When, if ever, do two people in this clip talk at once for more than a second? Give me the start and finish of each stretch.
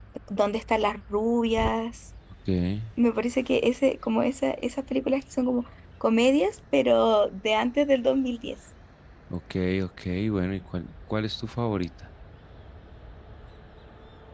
none

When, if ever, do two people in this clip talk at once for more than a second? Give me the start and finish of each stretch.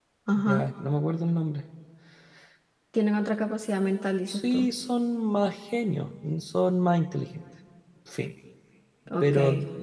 none

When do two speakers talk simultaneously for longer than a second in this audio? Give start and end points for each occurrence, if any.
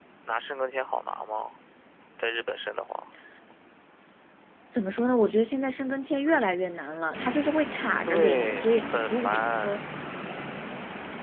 8.1-9.3

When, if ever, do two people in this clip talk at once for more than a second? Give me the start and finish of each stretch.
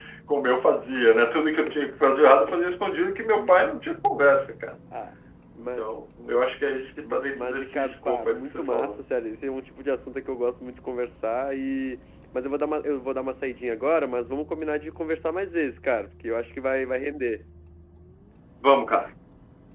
7.0-9.0

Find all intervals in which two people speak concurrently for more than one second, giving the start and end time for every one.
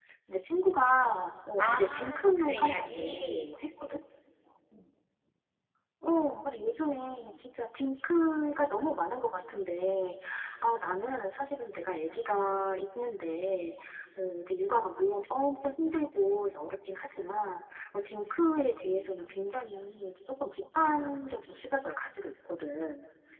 1.6-3.5

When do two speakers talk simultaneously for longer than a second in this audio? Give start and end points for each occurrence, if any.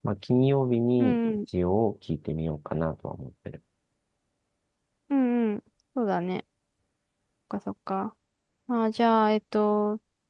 none

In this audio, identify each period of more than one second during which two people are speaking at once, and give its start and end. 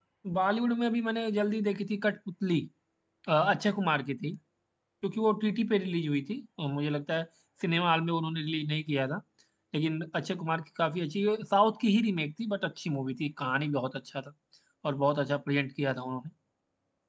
none

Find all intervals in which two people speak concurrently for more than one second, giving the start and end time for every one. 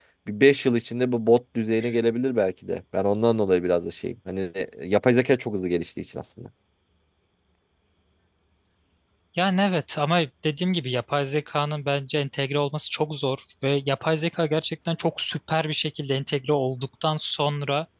none

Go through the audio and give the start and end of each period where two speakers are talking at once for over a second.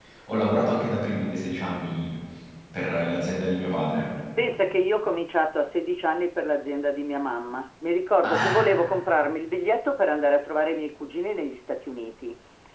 none

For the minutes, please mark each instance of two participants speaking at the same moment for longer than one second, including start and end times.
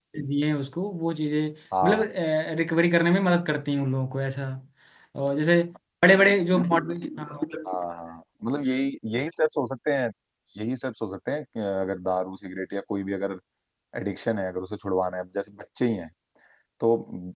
none

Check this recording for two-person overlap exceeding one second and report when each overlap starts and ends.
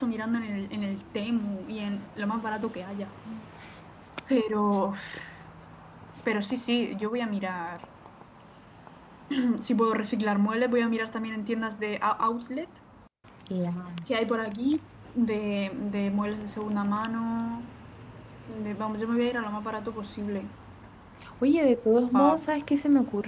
none

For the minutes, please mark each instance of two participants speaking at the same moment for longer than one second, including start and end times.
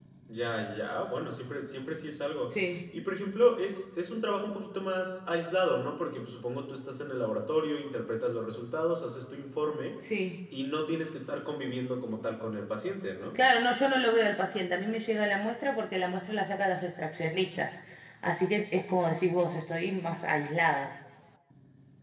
none

